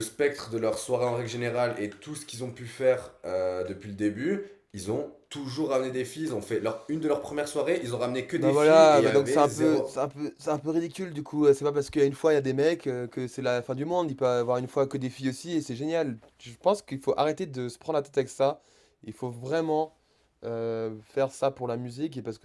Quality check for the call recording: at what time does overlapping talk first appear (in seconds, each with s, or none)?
8.4 s